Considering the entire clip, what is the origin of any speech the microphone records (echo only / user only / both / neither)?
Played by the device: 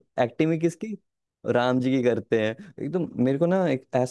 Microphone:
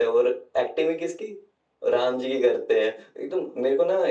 echo only